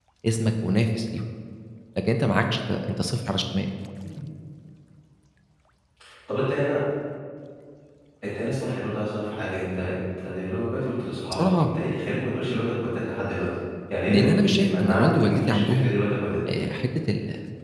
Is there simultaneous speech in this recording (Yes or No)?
Yes